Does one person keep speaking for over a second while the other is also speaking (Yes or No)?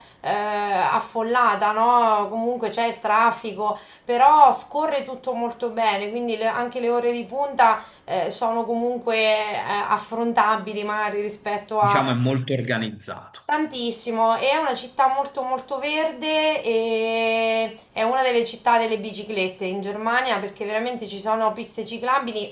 No